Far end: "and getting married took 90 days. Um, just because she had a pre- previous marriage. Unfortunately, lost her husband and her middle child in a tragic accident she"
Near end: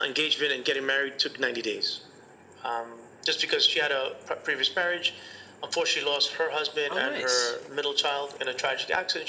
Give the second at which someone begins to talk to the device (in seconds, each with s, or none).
6.9 s